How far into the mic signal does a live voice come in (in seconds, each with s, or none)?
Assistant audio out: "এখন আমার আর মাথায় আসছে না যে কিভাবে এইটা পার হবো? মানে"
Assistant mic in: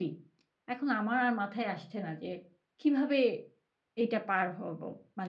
none